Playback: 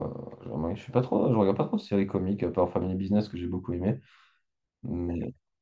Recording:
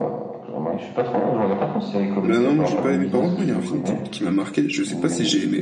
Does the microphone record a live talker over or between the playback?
Yes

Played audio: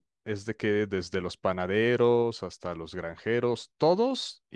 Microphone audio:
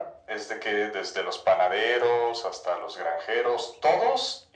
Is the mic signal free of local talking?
Yes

